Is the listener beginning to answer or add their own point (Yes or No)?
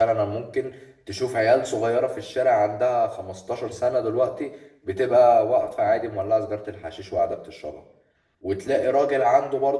No